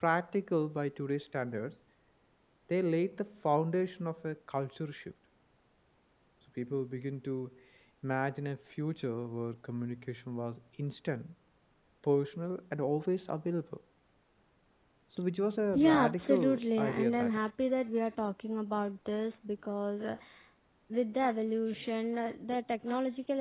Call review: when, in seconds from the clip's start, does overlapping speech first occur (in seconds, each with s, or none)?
15.7 s